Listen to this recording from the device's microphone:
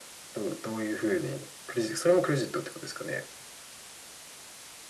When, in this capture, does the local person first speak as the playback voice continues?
none

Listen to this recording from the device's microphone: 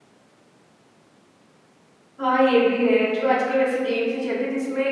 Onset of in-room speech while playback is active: 2.2 s

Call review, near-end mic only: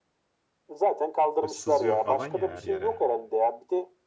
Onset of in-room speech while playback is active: 1.4 s

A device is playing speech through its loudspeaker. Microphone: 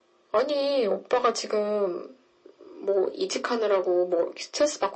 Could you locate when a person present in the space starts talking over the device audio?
none

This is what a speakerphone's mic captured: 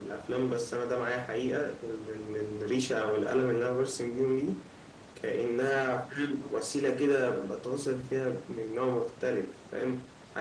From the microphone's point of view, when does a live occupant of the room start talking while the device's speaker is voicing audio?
none

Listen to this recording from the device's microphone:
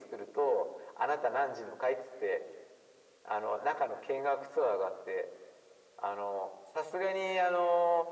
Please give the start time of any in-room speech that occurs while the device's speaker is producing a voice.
none

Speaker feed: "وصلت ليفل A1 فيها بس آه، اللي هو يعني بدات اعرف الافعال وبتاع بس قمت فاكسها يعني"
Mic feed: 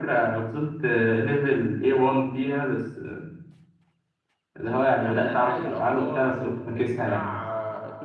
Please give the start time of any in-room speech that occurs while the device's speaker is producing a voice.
5.0 s

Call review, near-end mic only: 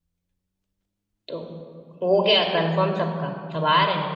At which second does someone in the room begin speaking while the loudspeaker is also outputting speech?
1.3 s

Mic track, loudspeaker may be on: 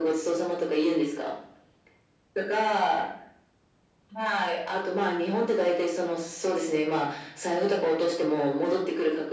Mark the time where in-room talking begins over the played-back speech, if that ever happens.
none

